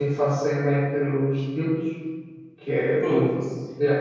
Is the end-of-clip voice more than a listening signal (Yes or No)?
No